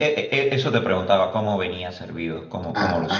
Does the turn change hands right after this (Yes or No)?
Yes